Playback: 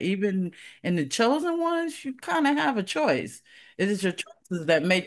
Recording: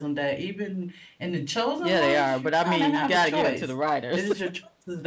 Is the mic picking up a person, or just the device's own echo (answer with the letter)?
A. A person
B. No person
A